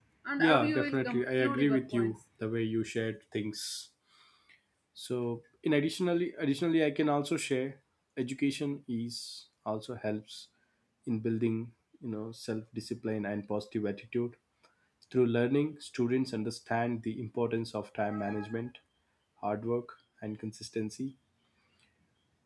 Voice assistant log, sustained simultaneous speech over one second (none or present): present